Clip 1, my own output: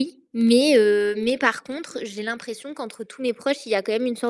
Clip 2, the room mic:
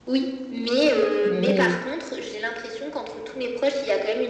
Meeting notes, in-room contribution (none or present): present